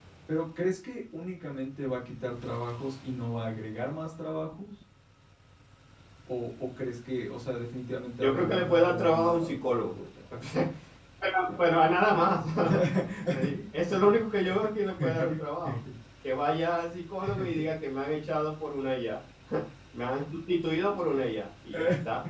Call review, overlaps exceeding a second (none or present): present